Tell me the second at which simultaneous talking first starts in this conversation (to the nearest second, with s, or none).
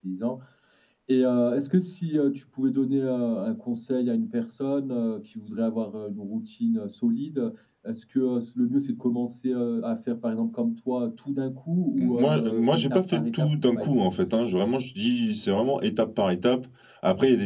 12 s